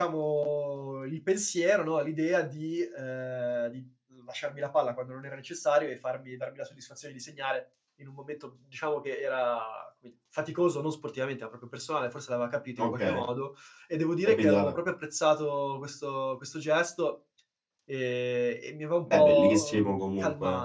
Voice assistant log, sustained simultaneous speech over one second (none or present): present